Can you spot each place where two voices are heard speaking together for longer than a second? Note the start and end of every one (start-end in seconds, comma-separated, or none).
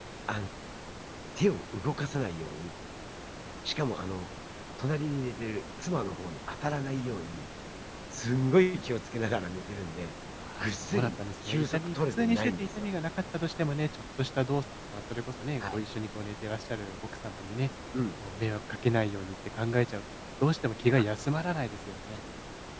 10.6-12.9